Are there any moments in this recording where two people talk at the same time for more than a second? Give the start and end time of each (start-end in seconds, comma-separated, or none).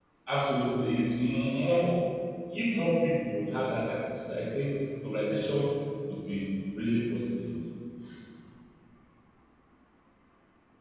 none